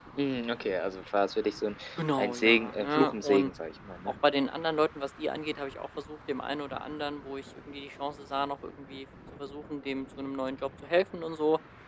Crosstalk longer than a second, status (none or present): present